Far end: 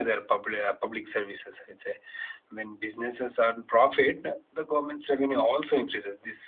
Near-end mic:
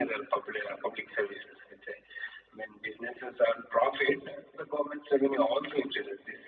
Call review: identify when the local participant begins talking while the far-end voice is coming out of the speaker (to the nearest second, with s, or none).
none